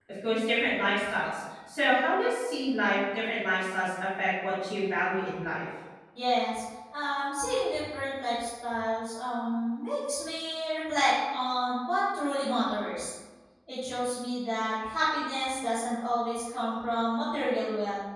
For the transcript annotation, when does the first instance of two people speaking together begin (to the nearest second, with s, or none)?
none